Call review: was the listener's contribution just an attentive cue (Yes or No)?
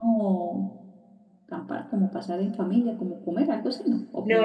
No